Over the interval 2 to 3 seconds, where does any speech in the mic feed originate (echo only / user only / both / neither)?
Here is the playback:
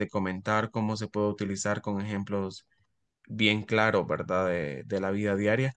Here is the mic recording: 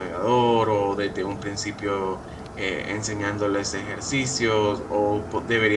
user only